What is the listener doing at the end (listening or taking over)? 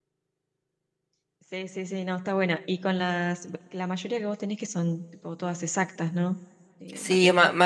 taking over